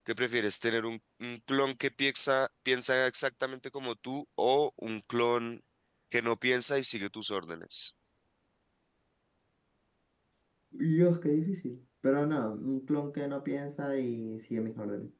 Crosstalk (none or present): none